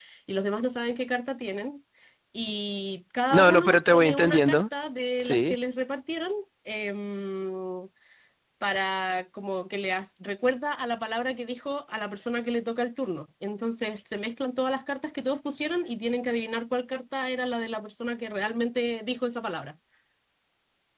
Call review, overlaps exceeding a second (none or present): present